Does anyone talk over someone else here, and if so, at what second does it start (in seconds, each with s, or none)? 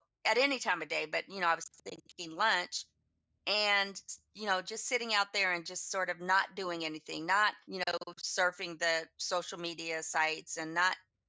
none